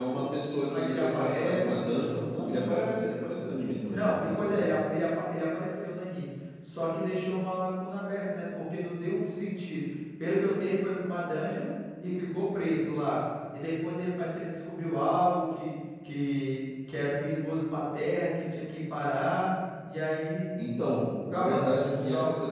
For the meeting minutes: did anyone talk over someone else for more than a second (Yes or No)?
Yes